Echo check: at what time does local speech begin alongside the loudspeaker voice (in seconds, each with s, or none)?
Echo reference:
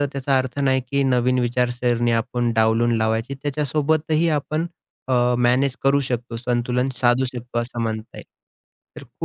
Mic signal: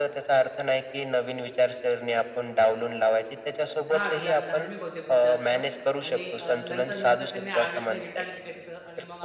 3.9 s